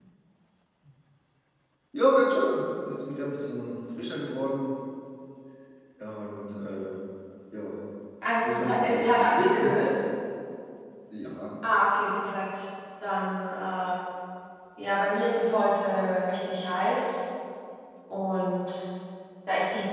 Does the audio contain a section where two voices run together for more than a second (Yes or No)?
Yes